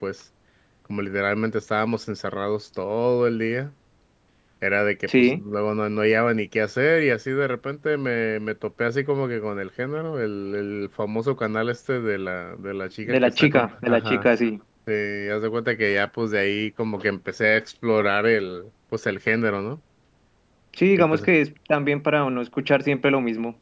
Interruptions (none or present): present